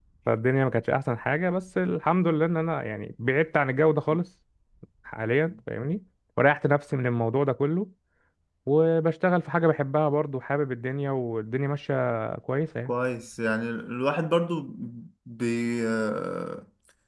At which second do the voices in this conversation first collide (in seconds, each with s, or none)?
none